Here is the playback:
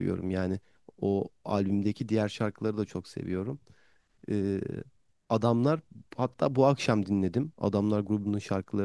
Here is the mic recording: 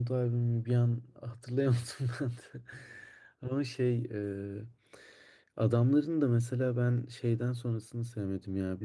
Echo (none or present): none